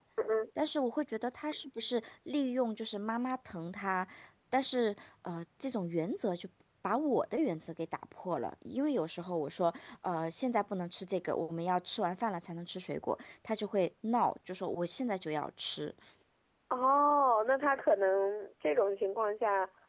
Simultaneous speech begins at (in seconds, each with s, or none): none